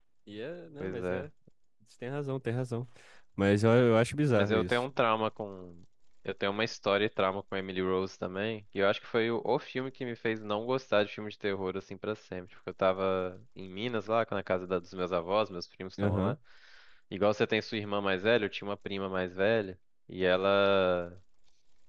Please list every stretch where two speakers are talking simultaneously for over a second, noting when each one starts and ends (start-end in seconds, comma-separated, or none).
none